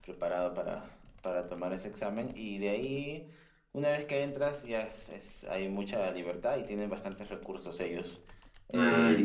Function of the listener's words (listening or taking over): listening